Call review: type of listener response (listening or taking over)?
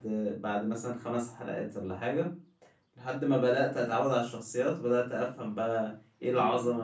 taking over